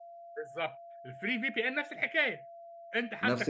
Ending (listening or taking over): taking over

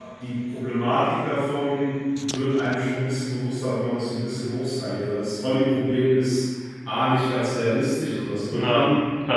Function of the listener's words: listening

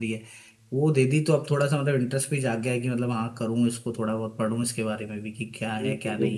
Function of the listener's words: taking over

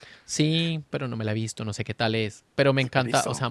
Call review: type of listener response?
listening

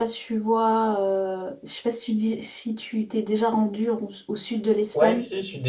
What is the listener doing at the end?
taking over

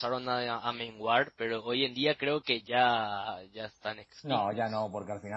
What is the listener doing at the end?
taking over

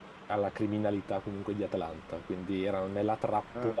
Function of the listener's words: listening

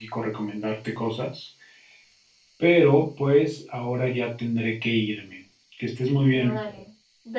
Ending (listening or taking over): taking over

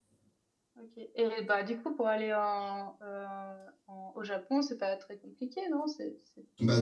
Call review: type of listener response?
taking over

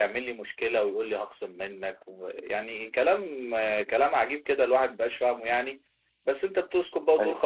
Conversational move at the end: listening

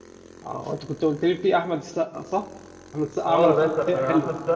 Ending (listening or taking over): taking over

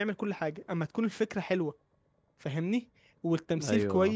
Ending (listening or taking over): listening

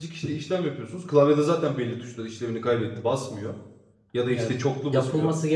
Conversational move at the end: taking over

